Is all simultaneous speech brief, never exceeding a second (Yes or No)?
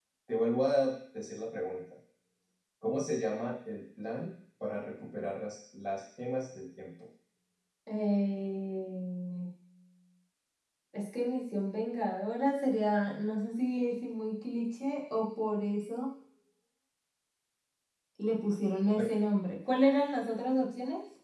Yes